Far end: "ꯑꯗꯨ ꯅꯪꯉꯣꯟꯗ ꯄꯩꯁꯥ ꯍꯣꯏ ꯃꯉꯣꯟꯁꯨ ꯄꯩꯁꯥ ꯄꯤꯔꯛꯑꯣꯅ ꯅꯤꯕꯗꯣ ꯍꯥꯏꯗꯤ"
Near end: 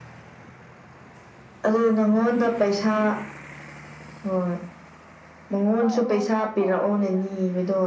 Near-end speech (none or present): present